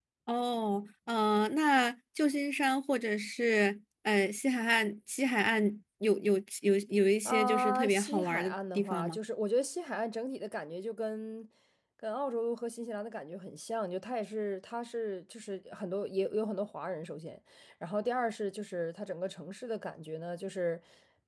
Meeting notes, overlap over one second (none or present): present